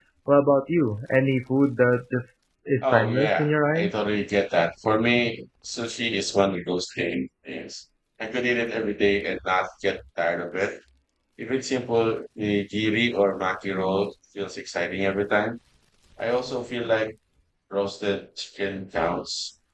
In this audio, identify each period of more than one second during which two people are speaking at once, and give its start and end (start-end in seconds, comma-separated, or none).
2.8-4.0